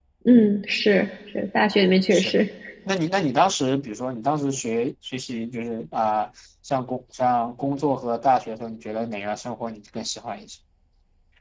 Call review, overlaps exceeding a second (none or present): none